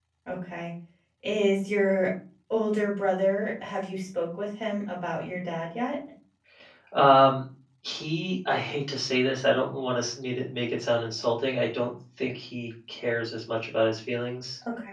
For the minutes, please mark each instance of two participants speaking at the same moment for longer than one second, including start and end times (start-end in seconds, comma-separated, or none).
none